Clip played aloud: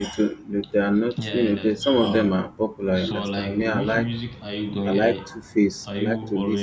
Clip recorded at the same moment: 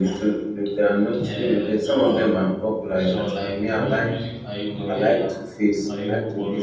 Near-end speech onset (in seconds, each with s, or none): none